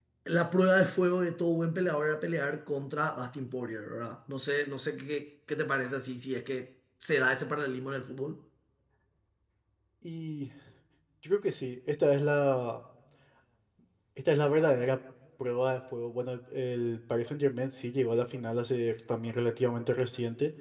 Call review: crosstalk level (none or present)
none